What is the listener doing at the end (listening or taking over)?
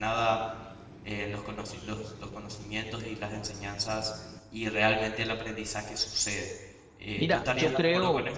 taking over